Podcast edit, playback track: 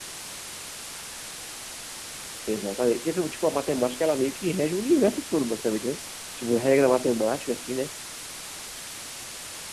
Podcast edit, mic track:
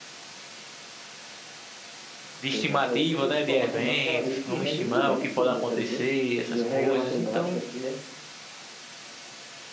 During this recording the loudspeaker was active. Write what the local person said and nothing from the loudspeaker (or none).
de estimativa, né? De eventos. Vamos estimar o que pode acontecer, essas coisas. Então,